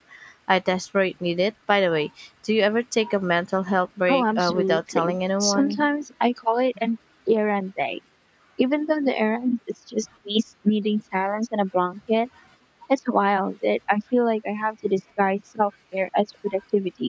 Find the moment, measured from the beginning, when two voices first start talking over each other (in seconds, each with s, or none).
4.1 s